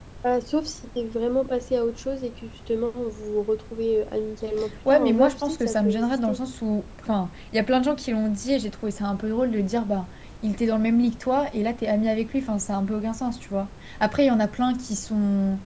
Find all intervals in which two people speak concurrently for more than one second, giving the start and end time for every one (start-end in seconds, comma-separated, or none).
4.9-6.4